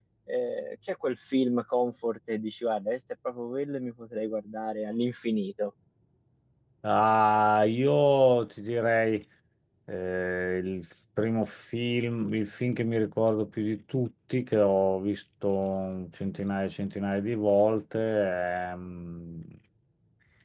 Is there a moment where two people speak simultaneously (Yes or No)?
No